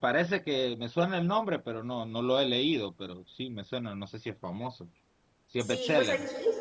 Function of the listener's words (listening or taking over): taking over